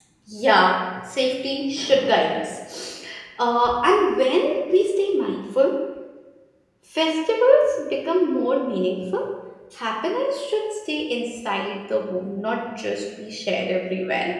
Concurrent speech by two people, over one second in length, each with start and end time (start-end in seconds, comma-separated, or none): none